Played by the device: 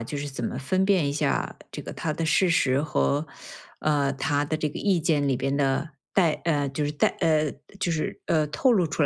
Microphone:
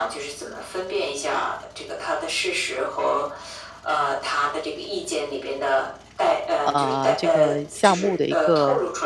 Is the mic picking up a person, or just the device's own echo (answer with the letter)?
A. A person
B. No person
A